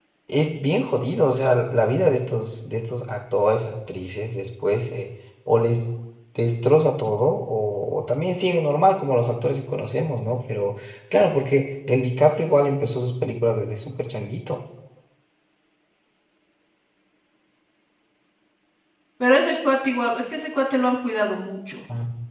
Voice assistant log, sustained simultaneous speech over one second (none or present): none